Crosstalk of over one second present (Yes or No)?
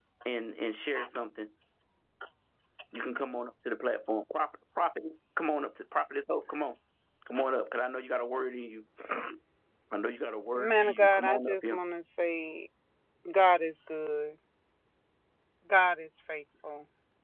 Yes